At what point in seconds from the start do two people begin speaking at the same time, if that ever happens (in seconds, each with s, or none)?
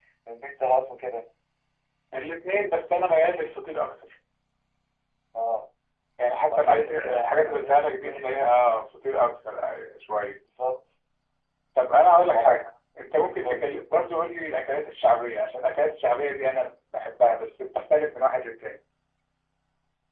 6.5 s